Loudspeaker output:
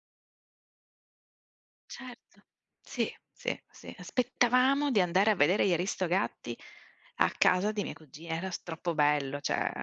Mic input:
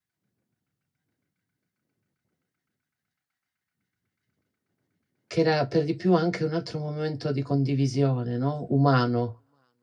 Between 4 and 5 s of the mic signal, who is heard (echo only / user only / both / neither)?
neither